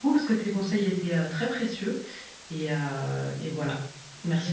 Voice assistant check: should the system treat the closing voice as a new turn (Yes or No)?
Yes